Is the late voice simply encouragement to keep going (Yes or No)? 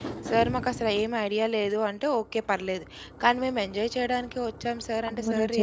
No